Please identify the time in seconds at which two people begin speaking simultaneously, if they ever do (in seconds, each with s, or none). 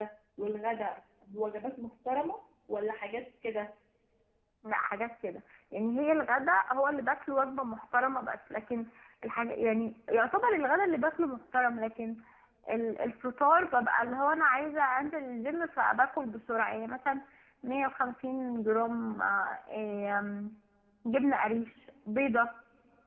none